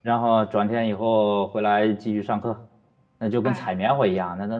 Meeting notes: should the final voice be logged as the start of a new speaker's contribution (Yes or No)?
No